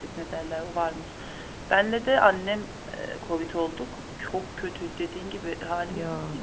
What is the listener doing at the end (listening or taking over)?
listening